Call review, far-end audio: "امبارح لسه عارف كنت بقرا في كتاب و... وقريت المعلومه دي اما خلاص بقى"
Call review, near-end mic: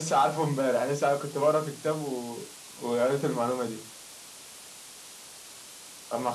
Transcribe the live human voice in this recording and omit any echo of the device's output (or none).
none